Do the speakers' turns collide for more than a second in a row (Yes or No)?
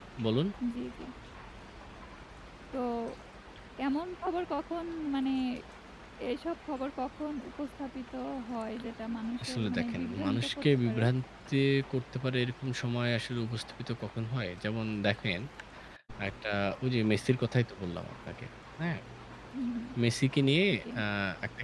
Yes